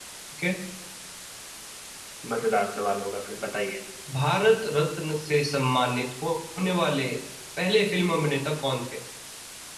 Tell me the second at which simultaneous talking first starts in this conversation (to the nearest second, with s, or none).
none